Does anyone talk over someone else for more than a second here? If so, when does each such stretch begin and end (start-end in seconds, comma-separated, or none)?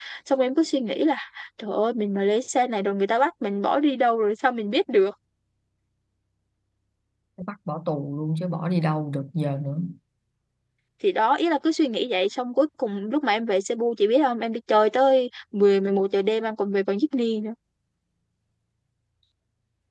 none